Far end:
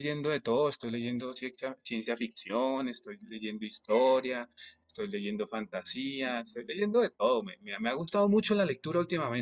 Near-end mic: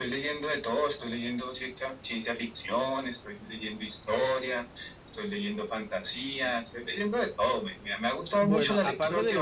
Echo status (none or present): present